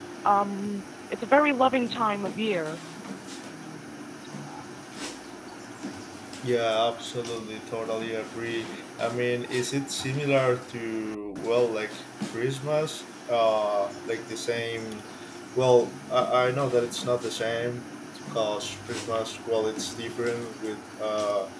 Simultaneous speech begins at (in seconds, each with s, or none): none